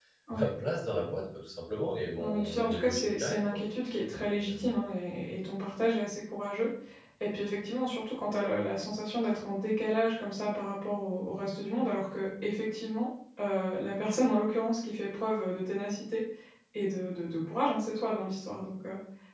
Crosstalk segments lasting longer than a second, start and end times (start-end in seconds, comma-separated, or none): 2.2-3.4